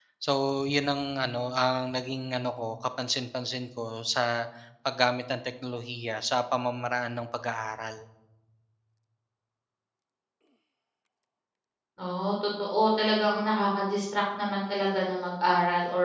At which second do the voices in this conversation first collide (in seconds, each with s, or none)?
none